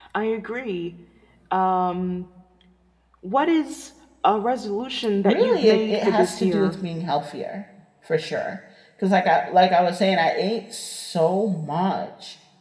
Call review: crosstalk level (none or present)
present